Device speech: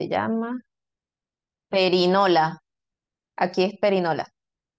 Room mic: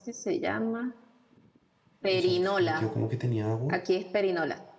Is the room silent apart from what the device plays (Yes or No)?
No